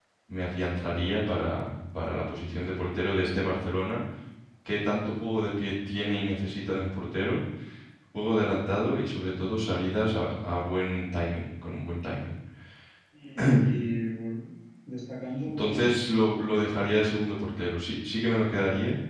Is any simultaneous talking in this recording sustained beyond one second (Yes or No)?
No